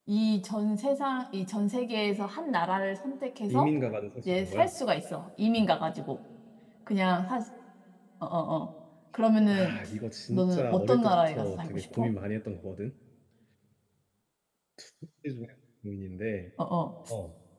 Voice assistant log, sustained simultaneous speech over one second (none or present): present